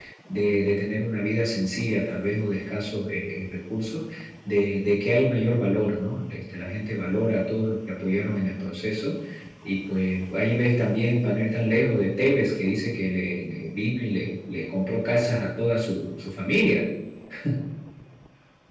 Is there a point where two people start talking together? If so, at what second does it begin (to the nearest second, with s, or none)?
none